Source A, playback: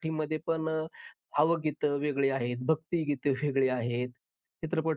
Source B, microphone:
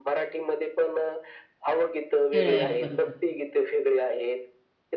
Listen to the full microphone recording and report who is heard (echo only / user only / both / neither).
both